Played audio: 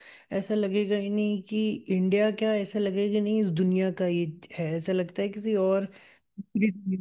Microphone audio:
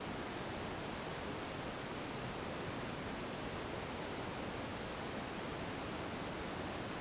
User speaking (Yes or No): No